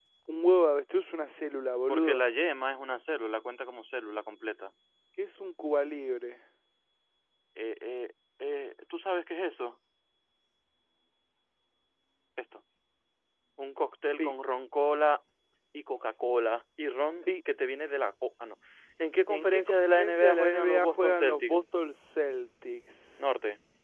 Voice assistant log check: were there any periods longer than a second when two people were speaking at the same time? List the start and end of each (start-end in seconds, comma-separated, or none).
19.3-21.6